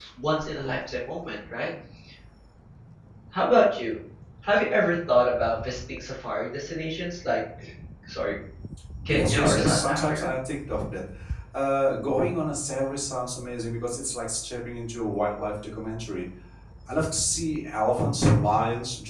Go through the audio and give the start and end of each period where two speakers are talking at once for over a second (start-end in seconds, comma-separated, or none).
9.1-10.3